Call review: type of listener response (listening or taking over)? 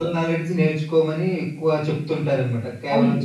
taking over